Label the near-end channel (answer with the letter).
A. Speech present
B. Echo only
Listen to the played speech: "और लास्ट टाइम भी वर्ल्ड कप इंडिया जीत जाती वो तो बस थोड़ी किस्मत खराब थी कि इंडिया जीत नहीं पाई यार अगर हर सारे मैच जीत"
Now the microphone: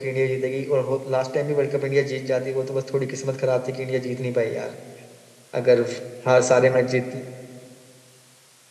B